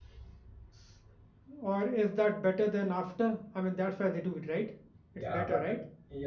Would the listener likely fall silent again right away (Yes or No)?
No